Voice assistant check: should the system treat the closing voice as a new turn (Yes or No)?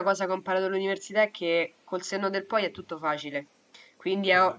No